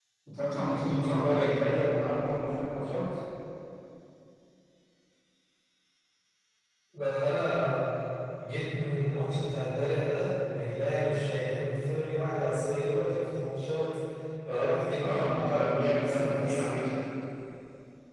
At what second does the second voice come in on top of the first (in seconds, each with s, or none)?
0.6 s